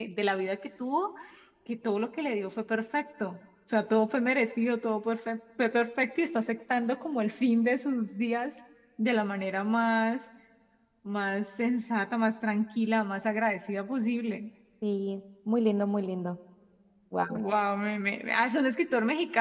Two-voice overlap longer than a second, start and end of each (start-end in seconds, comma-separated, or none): none